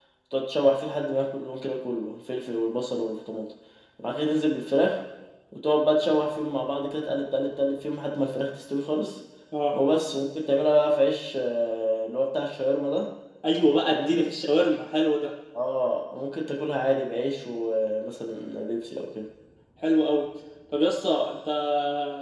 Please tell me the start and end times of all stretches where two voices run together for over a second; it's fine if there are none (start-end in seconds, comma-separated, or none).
none